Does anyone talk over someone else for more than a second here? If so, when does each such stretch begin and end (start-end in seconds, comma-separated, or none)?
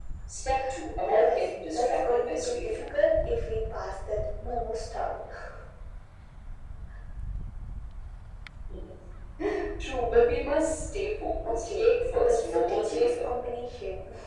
1.0-2.9, 11.4-13.3